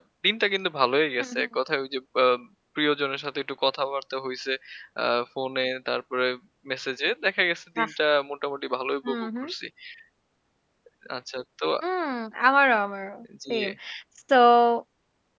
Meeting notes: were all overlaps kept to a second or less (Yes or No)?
Yes